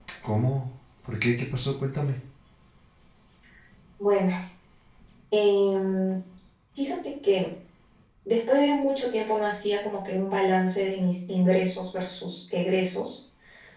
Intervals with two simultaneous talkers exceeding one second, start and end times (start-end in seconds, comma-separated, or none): none